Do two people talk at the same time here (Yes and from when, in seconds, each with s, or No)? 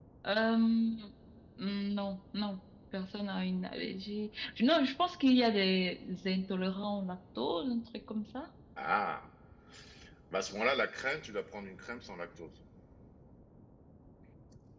No